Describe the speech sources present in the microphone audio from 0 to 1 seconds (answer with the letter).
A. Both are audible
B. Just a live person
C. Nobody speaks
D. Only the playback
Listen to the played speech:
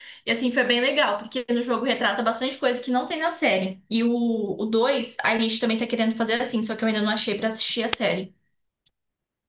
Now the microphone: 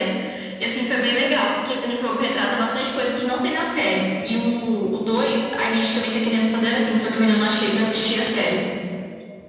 D